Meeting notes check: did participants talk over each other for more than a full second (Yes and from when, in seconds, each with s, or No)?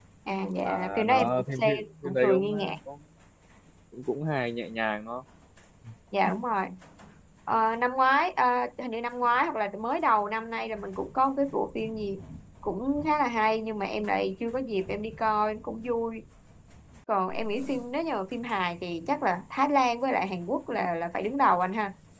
Yes, from 0.6 s